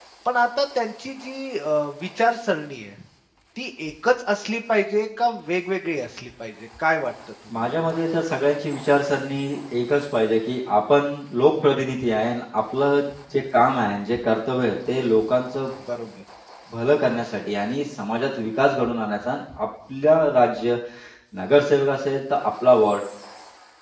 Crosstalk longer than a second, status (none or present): none